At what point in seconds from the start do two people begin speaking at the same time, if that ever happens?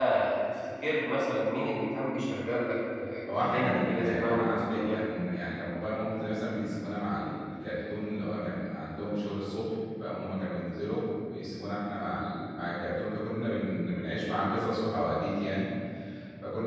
3.3 s

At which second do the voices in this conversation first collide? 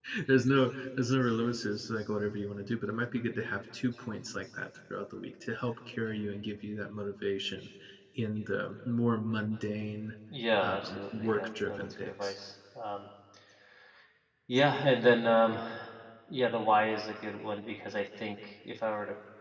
10.6 s

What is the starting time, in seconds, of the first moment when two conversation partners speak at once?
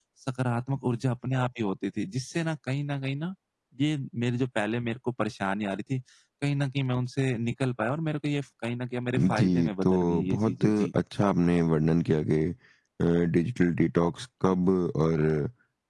9.2 s

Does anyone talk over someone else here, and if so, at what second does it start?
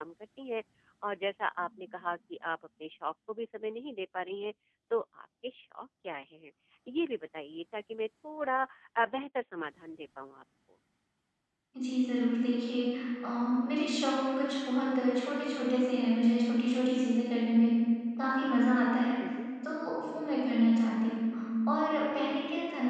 none

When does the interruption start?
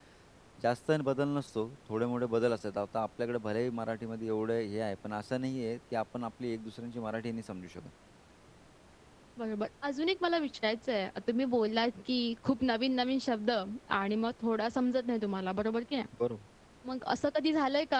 none

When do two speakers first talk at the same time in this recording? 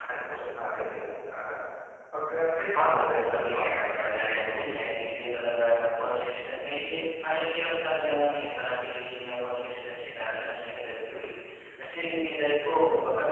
2.7 s

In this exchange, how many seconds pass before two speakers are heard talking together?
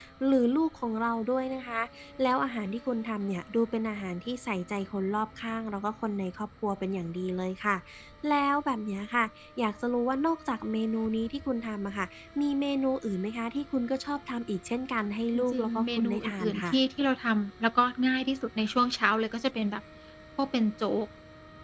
15.3 s

